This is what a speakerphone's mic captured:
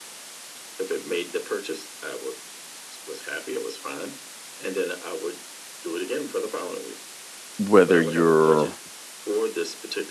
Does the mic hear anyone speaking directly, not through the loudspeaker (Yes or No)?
Yes